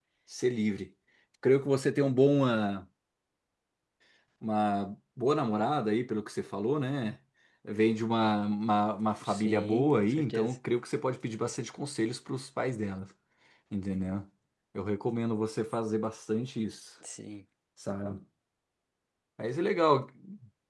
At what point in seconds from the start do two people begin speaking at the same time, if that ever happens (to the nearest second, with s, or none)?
9 s